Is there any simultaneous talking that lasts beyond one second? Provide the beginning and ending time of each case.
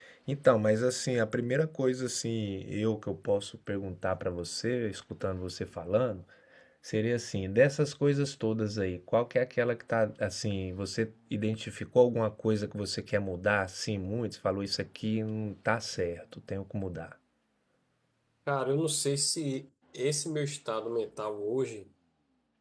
none

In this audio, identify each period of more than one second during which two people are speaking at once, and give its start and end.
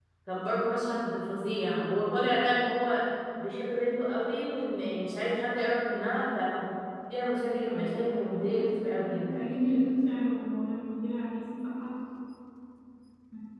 7.6-9.4

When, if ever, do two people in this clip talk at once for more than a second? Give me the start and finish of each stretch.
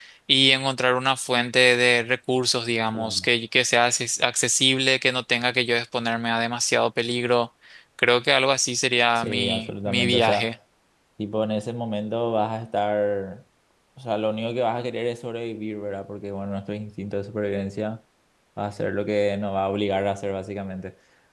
9.2-10.5

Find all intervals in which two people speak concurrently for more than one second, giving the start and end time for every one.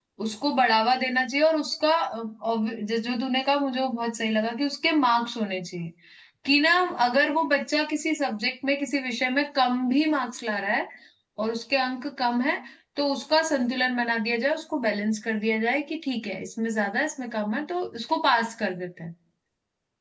none

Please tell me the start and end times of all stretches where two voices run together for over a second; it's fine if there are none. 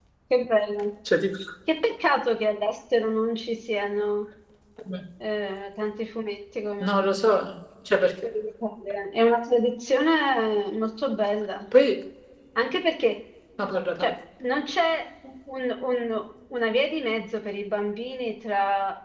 none

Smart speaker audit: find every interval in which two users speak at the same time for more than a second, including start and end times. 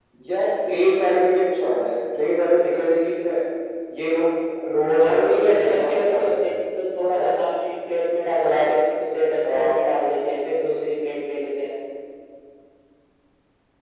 5.0-6.4

